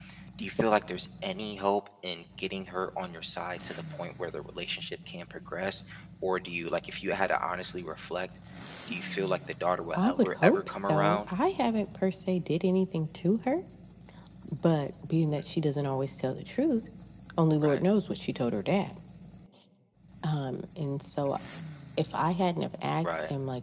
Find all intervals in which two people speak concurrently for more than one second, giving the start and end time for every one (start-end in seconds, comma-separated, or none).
9.9-11.2